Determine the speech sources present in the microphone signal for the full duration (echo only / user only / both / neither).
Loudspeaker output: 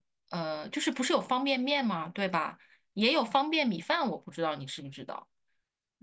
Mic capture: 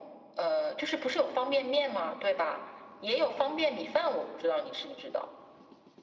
echo only